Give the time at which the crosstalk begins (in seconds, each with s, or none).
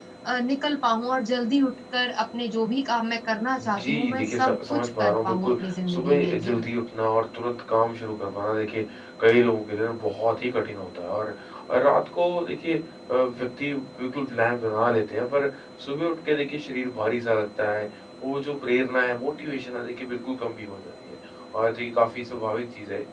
3.6 s